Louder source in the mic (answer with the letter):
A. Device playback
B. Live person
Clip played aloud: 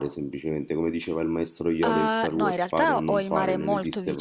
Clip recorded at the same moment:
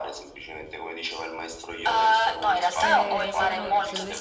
A